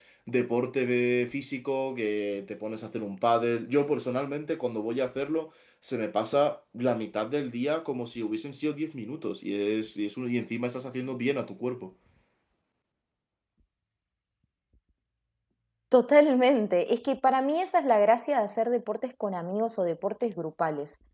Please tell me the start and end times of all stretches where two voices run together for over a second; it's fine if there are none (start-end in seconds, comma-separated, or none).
none